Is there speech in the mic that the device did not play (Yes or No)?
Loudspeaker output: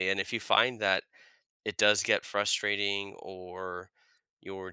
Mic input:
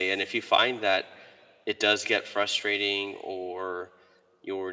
No